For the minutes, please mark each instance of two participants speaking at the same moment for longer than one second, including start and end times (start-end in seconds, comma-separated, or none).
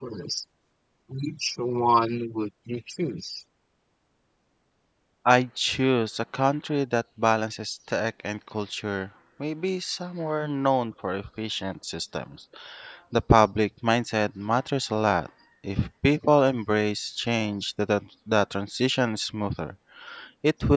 none